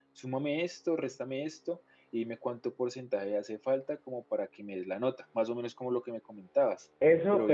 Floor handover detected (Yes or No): Yes